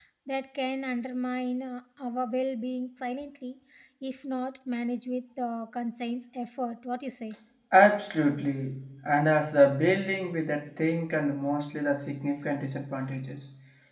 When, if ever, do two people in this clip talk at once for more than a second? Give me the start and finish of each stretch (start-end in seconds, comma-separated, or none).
none